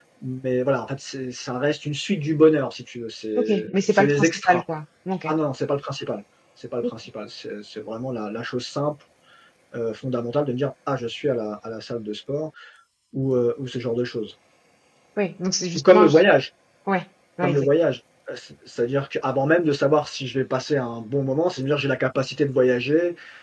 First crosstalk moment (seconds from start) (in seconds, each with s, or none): 3.4 s